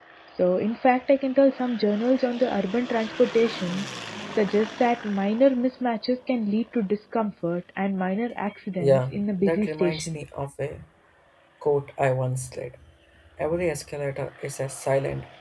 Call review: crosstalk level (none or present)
present